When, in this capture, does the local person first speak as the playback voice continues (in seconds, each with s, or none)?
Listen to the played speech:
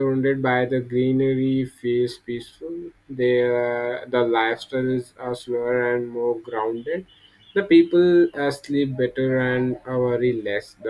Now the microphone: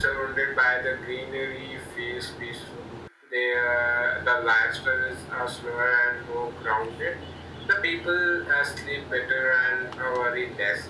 none